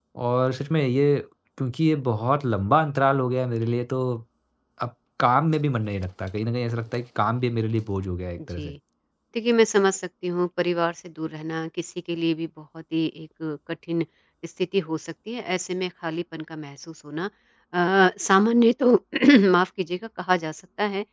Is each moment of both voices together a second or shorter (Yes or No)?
Yes